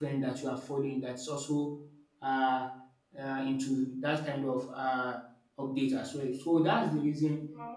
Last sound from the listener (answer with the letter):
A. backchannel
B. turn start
A